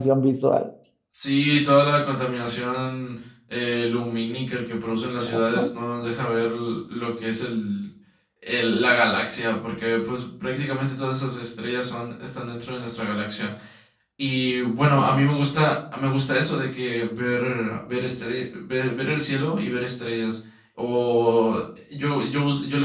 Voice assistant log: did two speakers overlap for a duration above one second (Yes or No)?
No